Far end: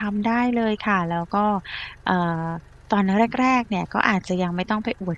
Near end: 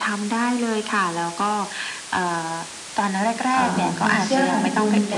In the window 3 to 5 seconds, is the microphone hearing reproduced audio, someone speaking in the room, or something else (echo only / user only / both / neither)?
both